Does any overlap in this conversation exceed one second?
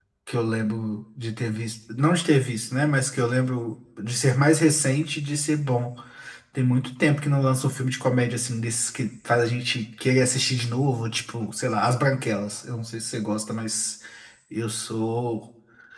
No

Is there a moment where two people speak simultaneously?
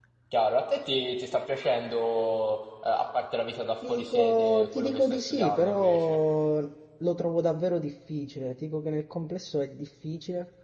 Yes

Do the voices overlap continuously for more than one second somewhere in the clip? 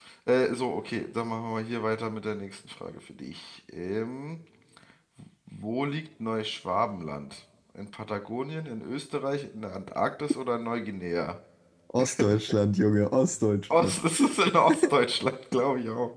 No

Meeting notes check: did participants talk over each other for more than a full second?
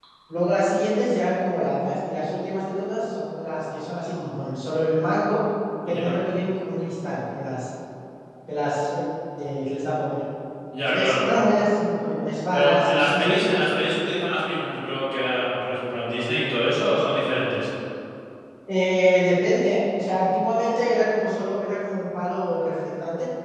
Yes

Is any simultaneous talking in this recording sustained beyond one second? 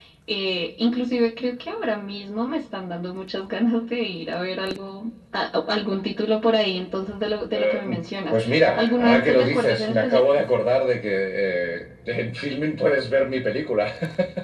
Yes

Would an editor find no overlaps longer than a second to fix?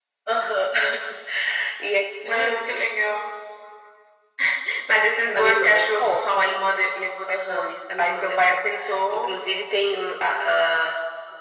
No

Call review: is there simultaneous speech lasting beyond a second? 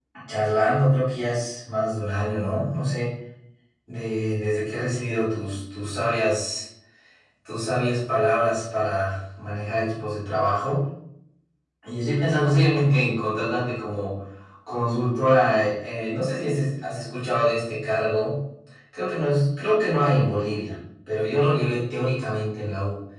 No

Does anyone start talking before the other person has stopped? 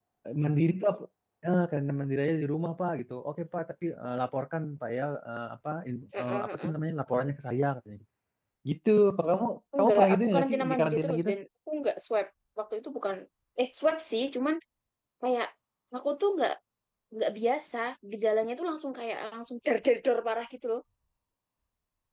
Yes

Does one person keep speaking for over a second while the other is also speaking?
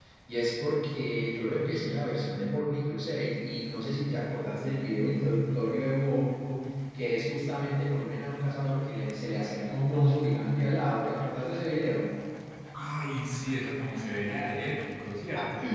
No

